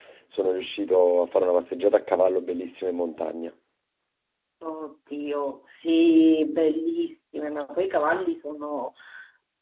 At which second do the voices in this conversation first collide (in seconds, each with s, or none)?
none